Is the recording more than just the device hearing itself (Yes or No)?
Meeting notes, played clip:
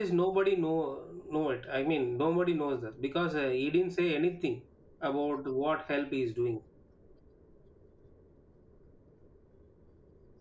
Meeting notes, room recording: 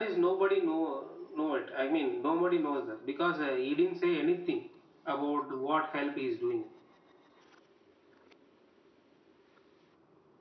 No